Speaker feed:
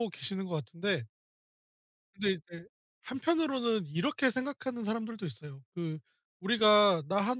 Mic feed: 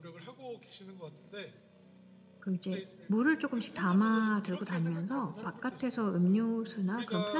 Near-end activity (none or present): present